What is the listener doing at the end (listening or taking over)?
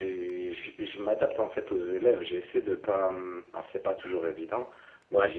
listening